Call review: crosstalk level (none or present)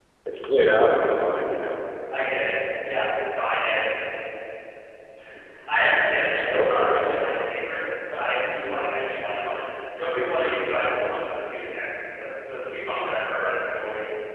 none